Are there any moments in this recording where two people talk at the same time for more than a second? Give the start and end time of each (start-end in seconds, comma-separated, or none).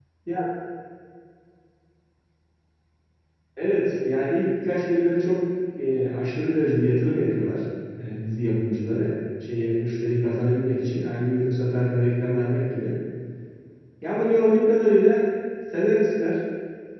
none